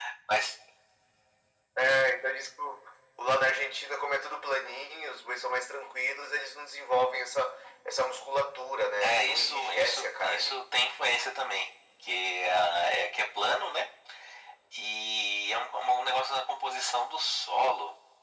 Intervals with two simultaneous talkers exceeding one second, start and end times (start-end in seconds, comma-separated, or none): 9.0-10.6